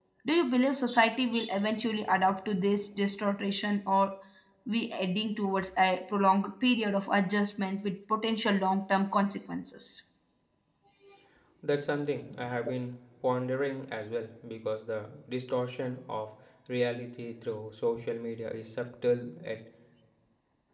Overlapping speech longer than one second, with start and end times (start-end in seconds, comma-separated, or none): none